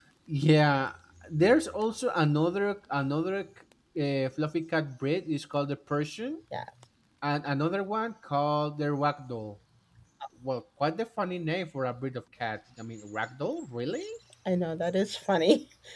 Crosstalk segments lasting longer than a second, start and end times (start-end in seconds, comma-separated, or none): none